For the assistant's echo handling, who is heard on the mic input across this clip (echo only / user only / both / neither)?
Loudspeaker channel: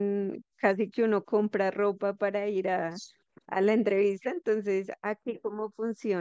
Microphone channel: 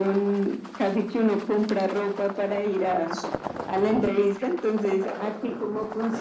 echo only